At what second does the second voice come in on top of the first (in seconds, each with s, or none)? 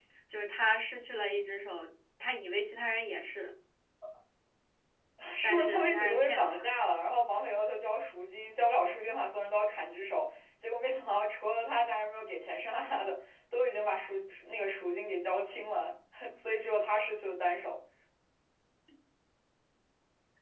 5.4 s